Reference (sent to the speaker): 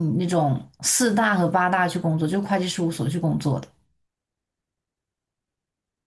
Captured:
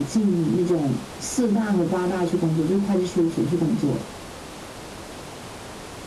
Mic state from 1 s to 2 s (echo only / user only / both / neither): echo only